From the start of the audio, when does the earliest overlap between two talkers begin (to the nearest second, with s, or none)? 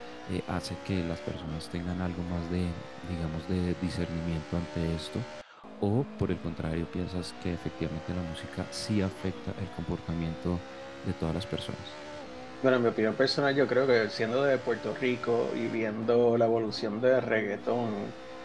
none